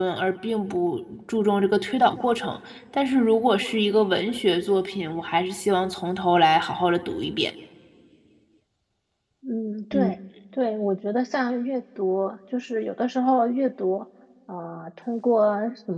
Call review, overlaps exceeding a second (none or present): none